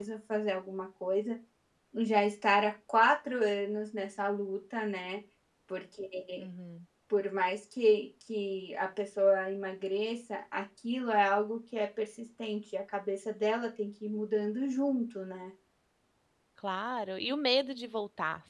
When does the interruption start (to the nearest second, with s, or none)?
none